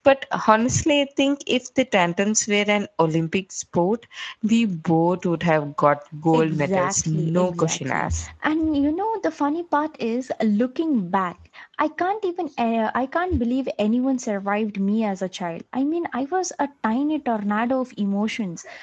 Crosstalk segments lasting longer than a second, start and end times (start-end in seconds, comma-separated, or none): 6.3-8.1